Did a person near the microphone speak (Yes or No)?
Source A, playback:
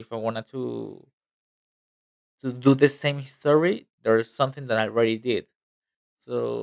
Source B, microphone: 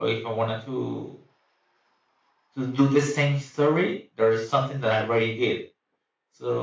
No